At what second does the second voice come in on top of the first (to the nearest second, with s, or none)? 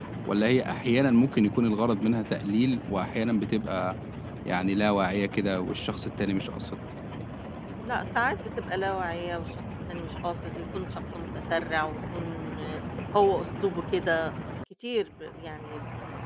none